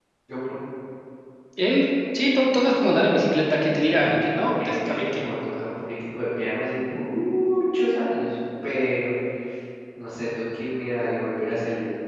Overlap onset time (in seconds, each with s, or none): 4.0 s